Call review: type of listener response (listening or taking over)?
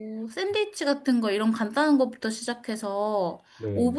listening